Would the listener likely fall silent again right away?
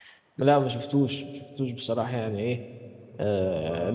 Yes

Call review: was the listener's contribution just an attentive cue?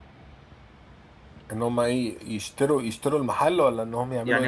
No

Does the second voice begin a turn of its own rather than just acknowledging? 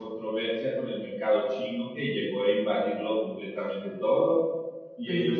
No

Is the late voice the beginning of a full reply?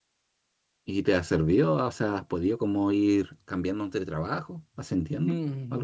Yes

